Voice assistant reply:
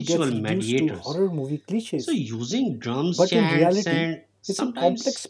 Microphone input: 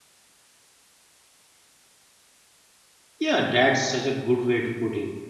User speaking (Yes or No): Yes